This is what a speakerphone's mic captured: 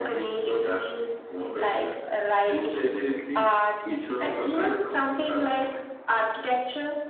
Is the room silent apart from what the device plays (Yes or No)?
No